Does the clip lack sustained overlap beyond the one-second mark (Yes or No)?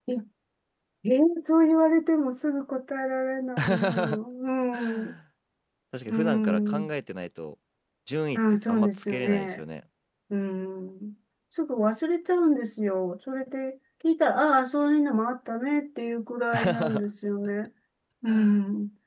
No